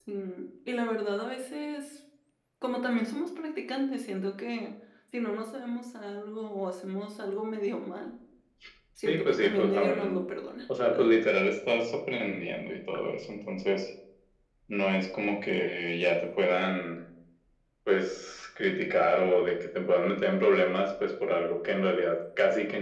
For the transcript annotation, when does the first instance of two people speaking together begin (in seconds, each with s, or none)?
9.0 s